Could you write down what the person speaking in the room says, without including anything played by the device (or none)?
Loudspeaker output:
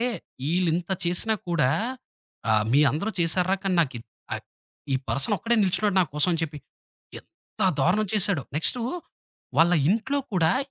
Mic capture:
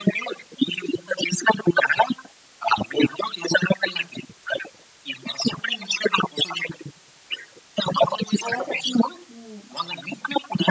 అలా చెప్పిన హ్మ్.